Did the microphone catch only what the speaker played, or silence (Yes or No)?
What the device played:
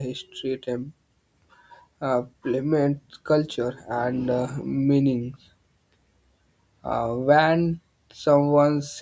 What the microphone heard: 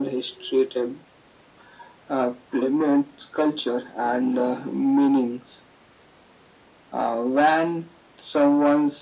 Yes